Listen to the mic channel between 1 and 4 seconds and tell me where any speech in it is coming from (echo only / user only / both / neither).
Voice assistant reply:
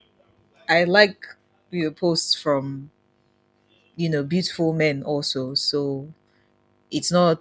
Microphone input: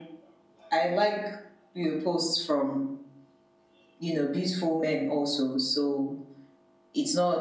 echo only